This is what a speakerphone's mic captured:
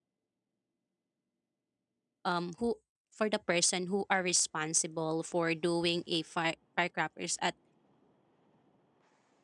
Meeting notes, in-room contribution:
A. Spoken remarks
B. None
A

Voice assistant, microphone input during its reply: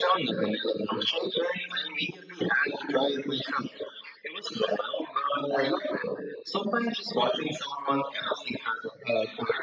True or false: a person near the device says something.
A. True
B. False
B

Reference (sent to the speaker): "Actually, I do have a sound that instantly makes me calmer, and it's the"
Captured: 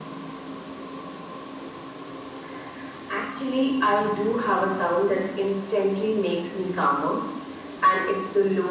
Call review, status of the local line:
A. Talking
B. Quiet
B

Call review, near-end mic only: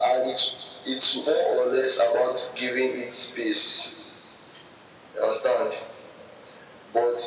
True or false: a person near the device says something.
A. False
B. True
A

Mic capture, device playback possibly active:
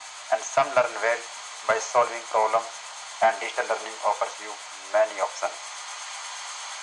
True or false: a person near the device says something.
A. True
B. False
B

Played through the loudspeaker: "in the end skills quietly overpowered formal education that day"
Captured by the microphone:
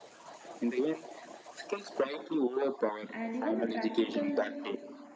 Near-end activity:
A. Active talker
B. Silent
A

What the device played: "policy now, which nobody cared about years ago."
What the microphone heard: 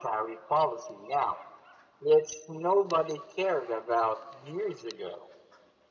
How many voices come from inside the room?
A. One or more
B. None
B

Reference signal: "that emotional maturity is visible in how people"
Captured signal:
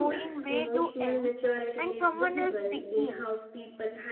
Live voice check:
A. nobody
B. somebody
B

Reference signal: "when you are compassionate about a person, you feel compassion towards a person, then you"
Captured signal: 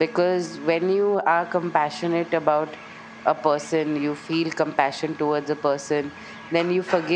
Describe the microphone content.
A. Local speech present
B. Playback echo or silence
B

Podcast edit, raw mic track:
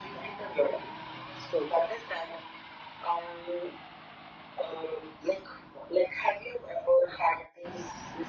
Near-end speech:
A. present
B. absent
B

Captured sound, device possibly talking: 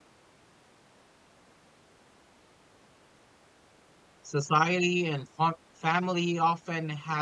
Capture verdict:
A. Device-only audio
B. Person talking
B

